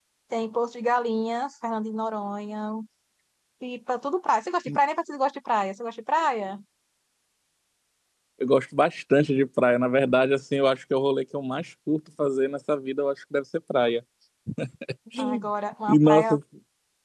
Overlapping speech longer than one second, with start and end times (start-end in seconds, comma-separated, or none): none